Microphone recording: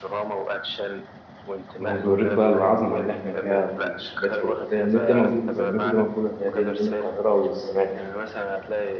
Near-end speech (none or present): present